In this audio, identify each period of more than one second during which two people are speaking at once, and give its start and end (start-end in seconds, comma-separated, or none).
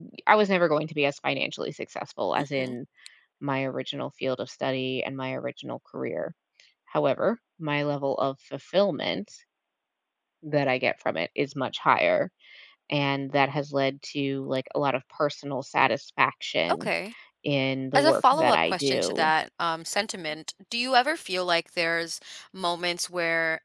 17.9-19.3